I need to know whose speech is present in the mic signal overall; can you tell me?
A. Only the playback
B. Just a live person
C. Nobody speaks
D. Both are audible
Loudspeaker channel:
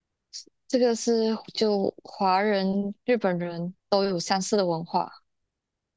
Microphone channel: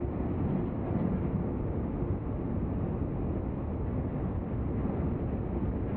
C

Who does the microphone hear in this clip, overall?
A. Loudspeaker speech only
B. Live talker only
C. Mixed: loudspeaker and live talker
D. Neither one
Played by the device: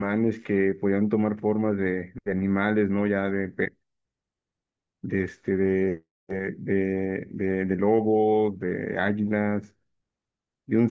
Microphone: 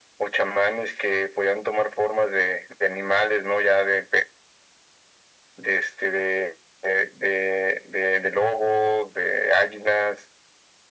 A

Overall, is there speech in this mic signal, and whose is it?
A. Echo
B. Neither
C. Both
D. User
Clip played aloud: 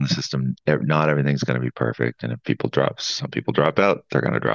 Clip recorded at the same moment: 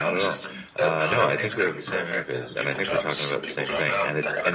C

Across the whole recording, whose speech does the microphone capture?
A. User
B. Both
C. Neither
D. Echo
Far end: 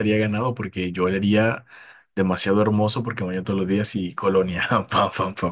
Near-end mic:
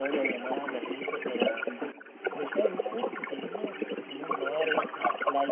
B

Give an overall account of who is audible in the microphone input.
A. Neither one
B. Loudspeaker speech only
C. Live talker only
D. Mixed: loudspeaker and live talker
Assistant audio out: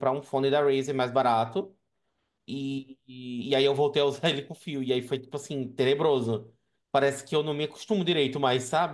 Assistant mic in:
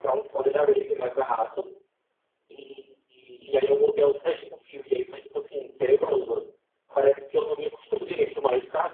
B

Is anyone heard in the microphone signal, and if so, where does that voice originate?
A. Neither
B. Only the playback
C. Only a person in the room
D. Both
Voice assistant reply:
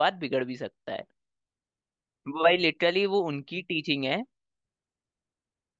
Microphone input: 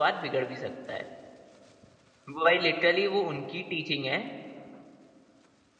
B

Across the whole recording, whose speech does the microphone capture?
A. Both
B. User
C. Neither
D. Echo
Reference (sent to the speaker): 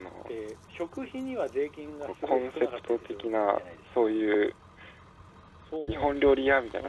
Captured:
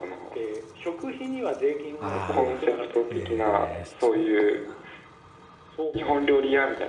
A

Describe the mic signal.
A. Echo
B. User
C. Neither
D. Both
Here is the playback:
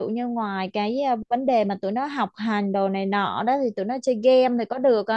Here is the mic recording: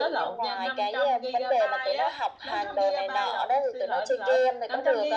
D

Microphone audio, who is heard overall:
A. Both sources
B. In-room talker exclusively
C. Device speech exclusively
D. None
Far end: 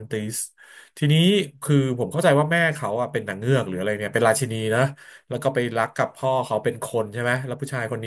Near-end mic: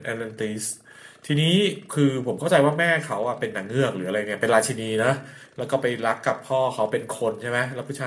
C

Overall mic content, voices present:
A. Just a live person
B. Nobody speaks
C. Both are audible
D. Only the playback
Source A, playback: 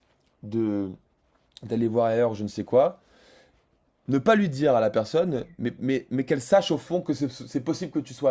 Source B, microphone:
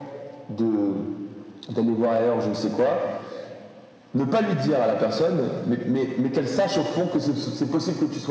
D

